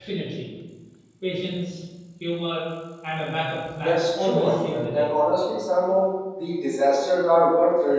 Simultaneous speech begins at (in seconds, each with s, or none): 3.8 s